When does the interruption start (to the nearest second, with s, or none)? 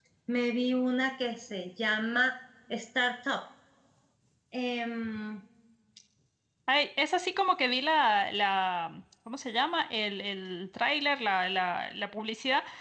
none